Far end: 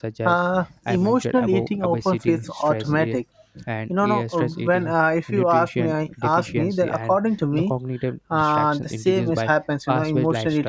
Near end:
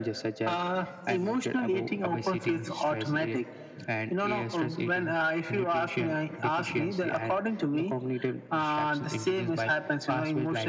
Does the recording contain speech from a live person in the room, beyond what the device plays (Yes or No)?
No